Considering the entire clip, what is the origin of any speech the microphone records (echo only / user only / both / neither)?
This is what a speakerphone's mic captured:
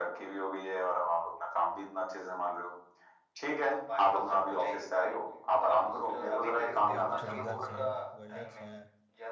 both